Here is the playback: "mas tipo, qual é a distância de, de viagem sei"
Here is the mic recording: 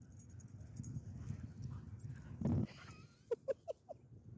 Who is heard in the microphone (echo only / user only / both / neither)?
neither